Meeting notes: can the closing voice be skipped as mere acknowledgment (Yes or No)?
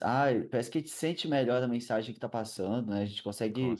Yes